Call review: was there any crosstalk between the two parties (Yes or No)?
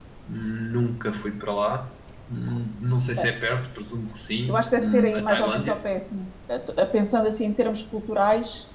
Yes